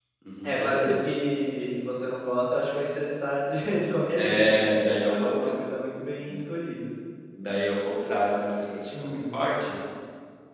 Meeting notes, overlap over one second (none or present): present